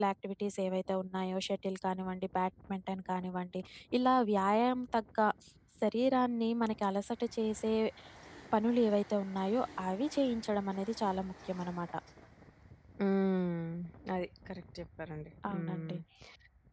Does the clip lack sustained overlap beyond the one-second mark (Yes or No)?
Yes